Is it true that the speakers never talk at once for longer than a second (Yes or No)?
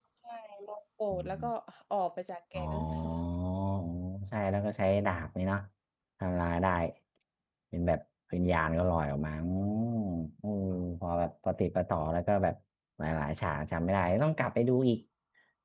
Yes